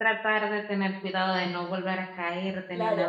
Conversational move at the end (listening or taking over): taking over